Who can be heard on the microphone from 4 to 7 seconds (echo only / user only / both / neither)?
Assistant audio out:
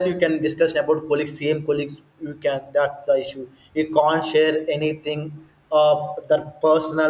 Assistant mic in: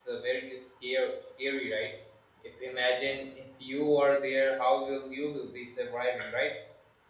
user only